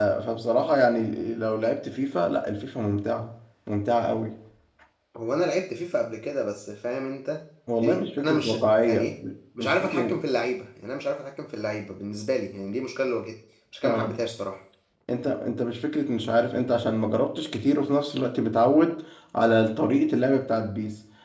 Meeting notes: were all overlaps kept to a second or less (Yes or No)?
No